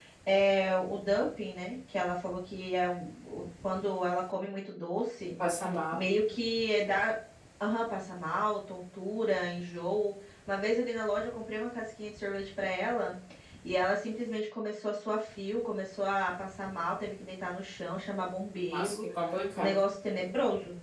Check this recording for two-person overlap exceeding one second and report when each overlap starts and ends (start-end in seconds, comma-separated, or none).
none